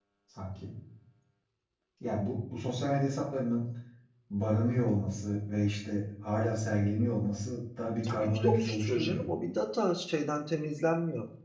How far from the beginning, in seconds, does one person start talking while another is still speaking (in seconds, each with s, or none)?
8.0 s